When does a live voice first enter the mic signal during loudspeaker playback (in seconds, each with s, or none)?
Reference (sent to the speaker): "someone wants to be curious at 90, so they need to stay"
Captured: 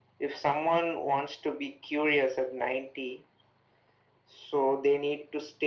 none